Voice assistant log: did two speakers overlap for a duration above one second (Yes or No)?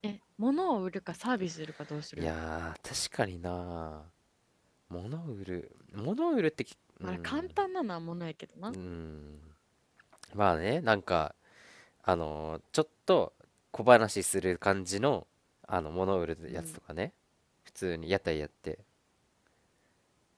No